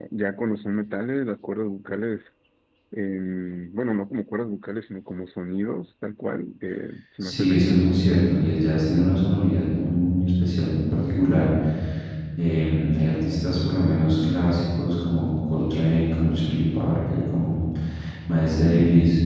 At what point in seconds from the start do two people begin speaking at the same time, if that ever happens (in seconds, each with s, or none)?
7.2 s